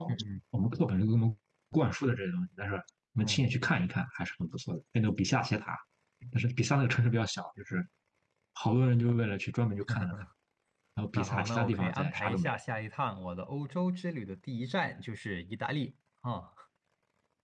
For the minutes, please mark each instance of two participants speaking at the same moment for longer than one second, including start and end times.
11.2-12.6

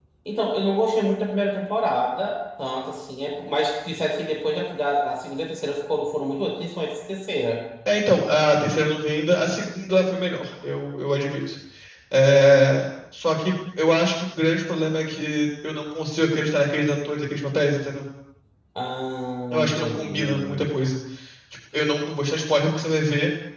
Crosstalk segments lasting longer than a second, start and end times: 19.5-20.7

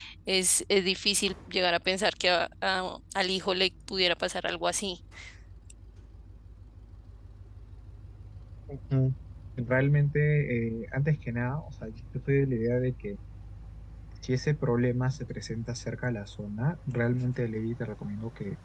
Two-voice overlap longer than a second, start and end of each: none

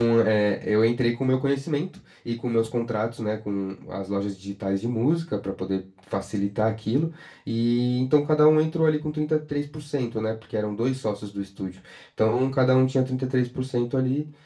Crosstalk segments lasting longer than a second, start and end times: none

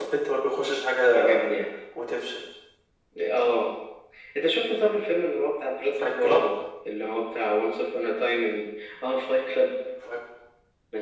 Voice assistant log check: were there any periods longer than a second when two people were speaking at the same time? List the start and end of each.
none

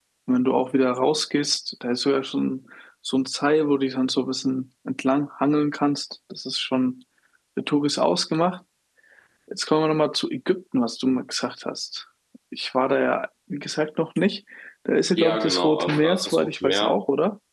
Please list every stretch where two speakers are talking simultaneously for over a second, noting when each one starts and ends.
15.2-17.0

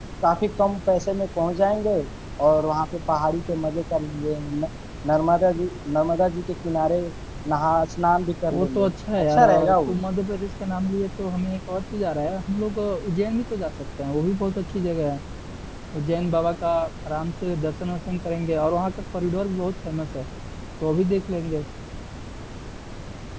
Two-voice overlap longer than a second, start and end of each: 8.5-10.0

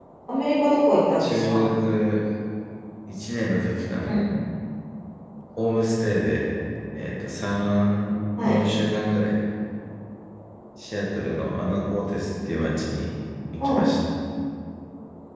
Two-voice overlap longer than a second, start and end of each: none

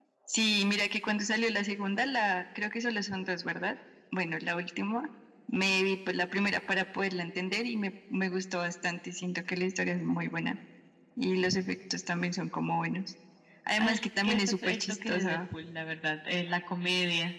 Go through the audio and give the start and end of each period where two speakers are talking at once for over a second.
13.8-15.4

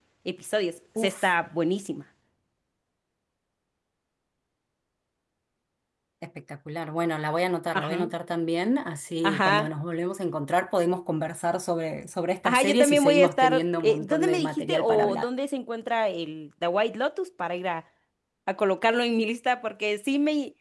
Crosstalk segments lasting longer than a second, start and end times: 12.4-15.3

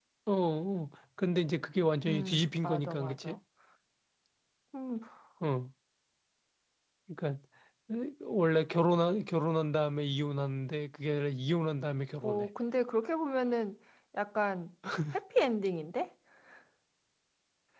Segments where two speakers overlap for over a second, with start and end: 2.1-3.4

